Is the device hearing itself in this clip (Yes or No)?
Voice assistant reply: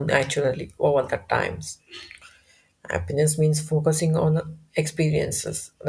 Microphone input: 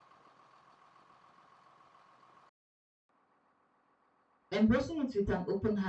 No